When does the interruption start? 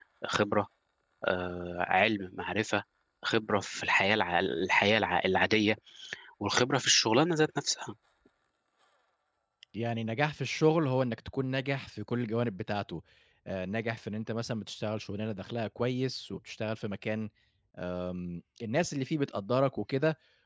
none

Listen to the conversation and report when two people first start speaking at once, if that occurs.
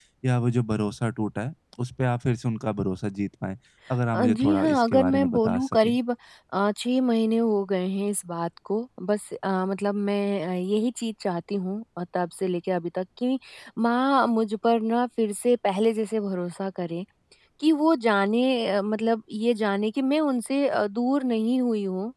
4.1 s

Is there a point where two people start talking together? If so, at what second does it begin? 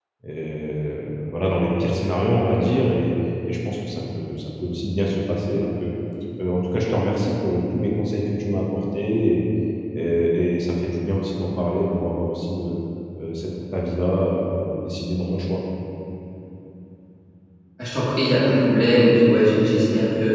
none

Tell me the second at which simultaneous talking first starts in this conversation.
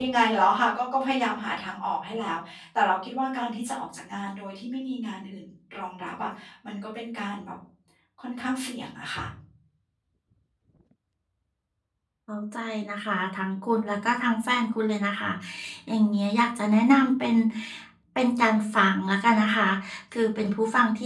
none

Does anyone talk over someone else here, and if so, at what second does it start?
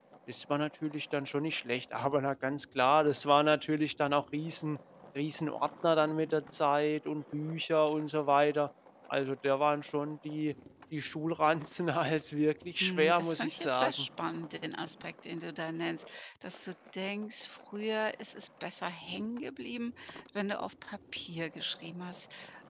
12.8 s

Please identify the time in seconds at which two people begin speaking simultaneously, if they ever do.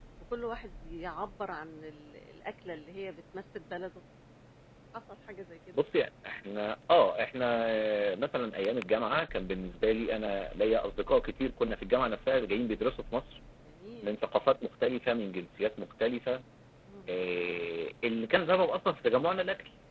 none

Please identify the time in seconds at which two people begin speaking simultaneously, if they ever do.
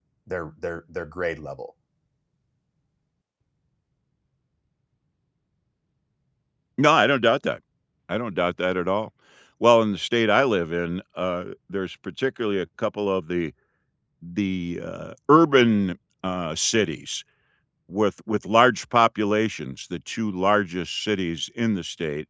none

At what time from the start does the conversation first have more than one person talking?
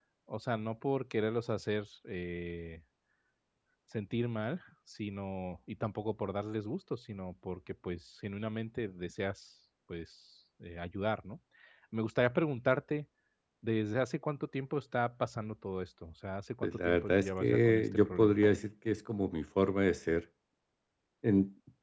16.6 s

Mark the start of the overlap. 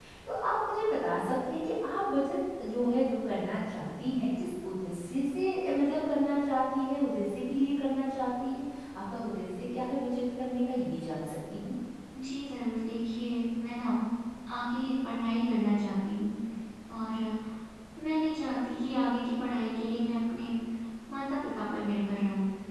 none

